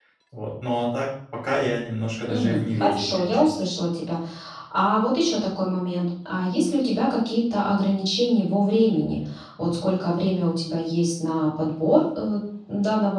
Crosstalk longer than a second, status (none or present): present